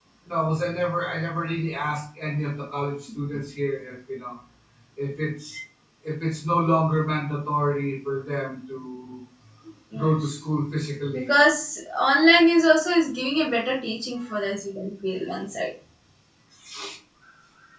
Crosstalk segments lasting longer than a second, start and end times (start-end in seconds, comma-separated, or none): none